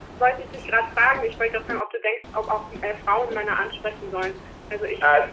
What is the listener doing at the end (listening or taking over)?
taking over